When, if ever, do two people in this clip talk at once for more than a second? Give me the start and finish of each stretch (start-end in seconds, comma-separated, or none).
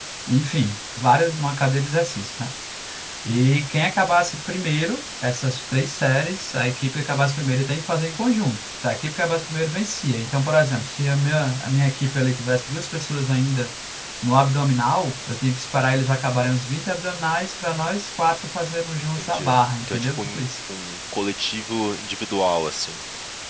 19.0-20.4